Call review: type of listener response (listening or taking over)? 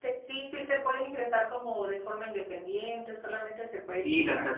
taking over